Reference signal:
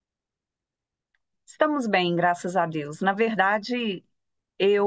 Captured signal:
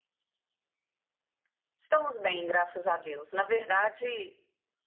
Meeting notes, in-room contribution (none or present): none